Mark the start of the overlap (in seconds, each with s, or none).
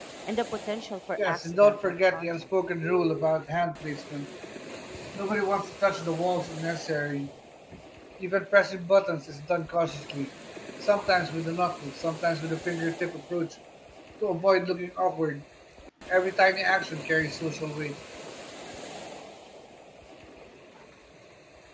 1.2 s